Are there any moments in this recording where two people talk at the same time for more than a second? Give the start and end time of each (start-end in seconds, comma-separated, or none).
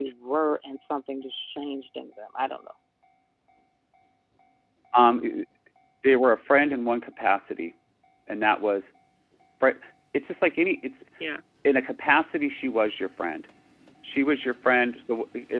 none